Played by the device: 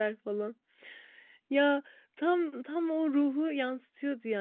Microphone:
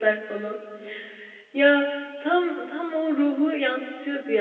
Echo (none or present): present